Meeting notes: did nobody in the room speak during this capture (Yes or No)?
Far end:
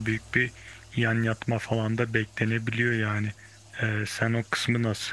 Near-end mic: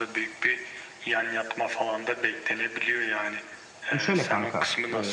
No